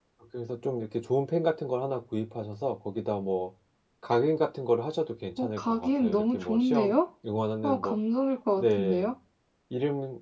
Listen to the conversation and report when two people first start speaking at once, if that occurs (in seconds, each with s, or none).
5.4 s